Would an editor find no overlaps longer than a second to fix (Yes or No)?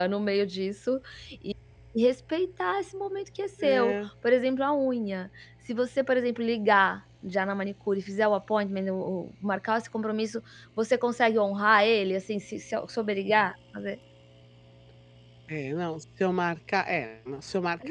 Yes